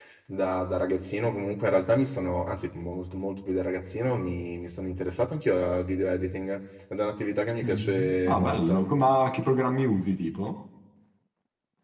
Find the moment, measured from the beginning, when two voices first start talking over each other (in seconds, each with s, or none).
7.6 s